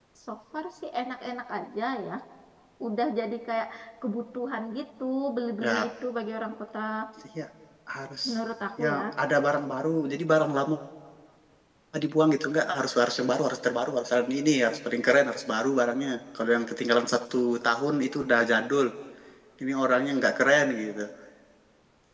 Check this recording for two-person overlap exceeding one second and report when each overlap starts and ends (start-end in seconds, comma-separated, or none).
none